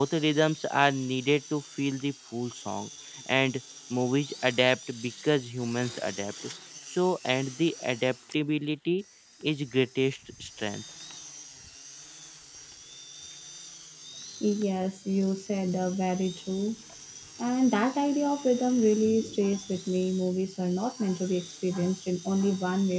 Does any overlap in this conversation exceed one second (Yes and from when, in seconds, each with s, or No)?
No